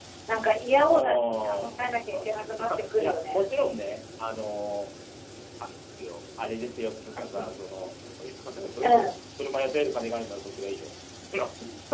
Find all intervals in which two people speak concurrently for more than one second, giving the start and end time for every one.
0.9-3.5

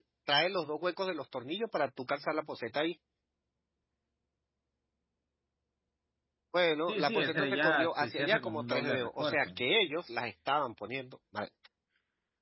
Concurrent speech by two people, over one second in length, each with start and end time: 6.9-9.5

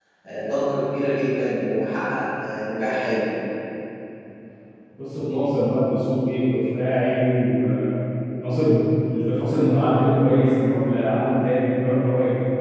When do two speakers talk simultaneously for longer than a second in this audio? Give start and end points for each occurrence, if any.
none

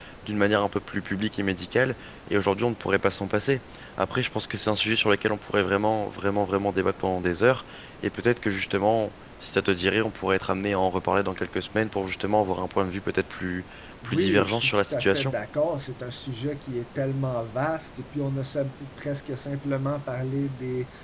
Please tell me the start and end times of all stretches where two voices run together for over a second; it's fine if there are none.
14.0-15.3

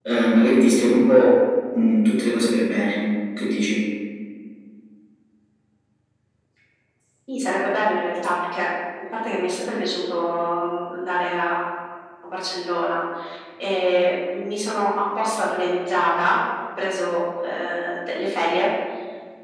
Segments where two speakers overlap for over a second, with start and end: none

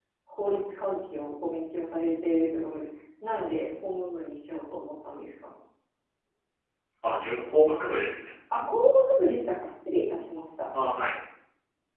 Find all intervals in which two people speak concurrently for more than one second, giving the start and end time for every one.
none

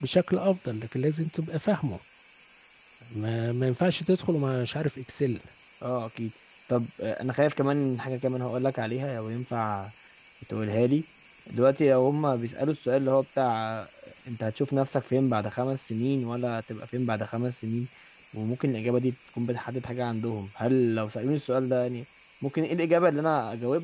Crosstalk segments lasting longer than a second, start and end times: none

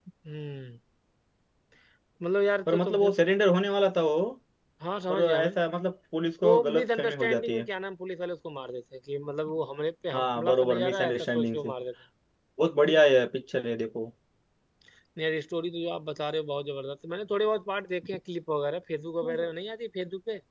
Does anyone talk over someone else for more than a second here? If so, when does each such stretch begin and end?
6.4-7.7, 10.1-11.7

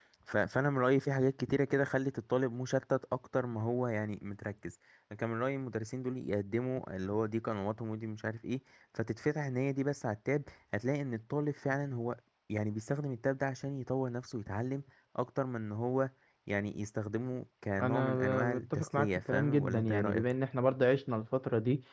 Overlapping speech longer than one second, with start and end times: 17.8-20.2

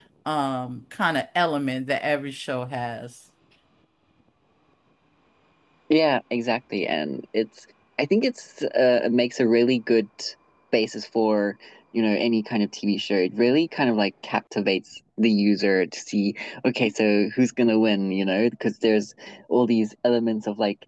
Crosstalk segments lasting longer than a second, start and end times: none

